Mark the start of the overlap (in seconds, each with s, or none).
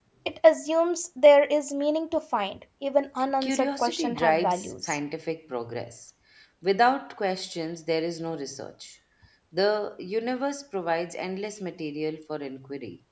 3.4 s